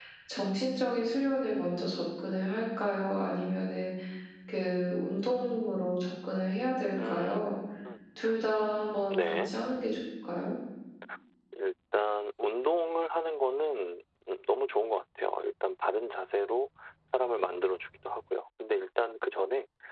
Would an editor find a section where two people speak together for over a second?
No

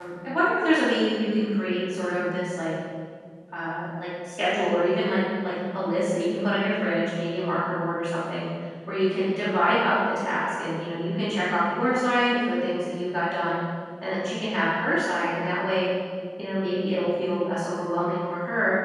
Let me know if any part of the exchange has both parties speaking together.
No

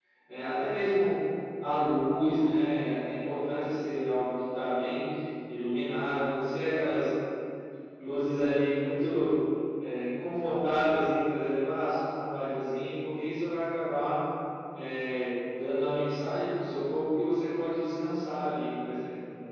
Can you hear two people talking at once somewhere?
No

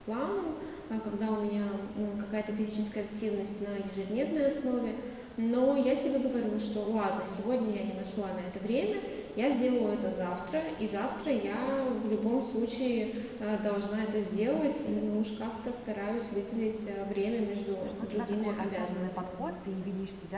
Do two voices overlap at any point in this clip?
Yes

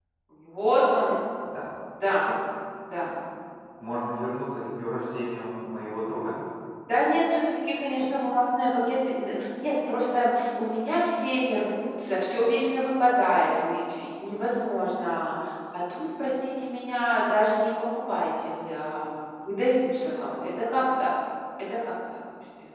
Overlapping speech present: No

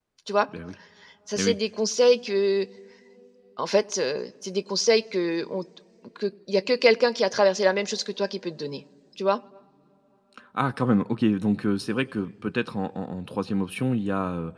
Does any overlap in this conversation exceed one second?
No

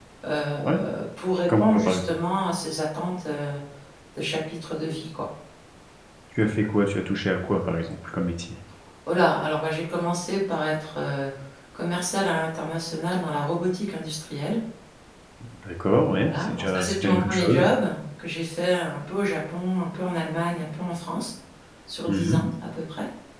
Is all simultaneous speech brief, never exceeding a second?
No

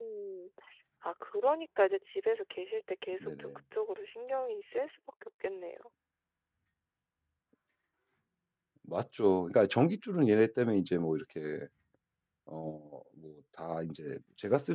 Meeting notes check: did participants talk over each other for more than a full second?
No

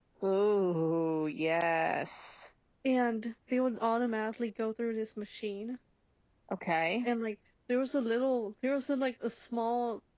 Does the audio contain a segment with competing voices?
No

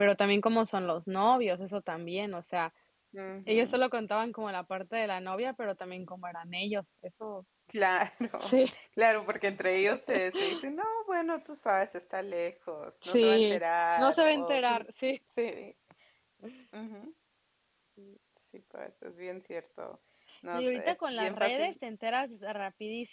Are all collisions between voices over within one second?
No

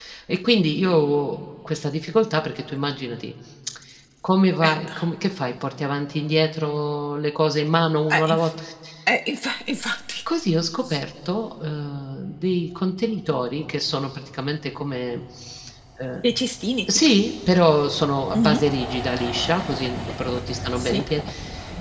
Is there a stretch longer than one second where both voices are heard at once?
No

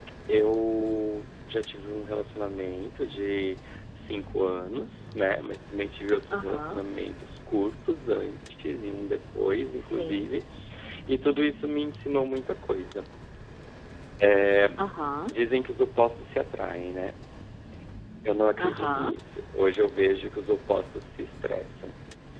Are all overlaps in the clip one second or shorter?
Yes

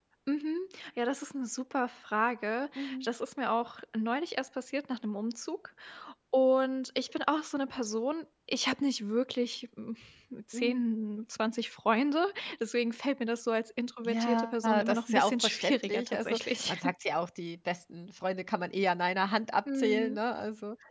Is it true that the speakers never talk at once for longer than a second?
No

